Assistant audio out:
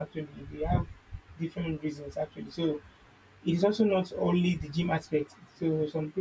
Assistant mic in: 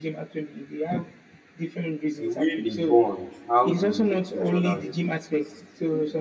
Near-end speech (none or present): present